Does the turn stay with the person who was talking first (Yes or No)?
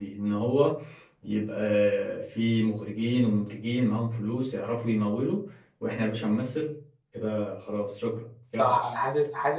No